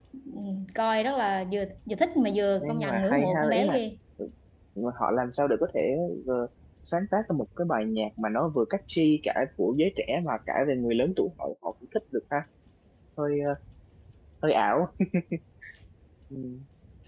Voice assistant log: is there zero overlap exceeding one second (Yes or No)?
No